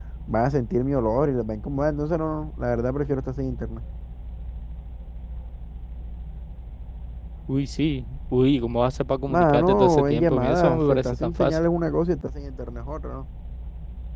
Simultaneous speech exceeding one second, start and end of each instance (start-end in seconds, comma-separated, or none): 9.3-11.6